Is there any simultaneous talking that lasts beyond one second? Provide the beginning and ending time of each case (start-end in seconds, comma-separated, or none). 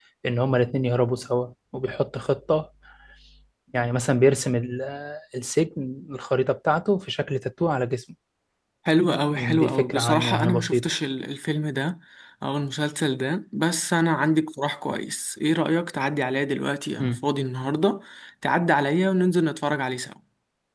9.4-10.9